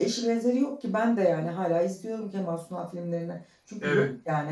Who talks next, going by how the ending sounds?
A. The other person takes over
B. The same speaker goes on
B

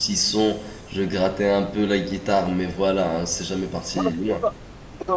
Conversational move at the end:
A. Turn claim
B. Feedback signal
A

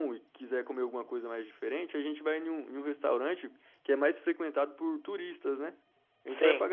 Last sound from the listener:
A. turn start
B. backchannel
B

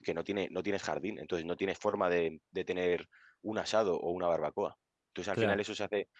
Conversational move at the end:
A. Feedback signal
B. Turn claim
A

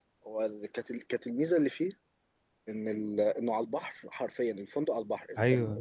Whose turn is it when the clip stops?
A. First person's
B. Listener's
A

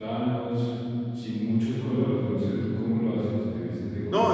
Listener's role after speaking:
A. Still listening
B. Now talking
B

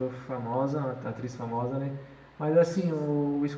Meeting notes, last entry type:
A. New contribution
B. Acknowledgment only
B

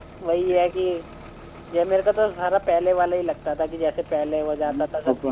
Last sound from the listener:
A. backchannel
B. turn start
B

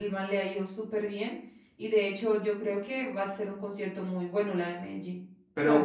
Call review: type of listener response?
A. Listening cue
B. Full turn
B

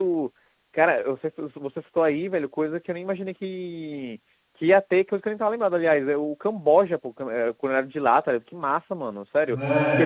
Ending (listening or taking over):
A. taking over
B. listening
A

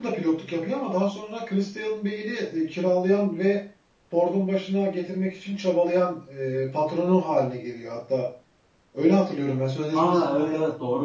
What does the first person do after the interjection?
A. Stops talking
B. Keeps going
A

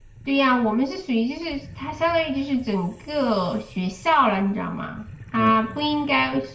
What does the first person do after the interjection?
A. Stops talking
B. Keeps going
B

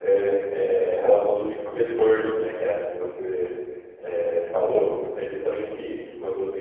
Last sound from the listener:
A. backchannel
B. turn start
A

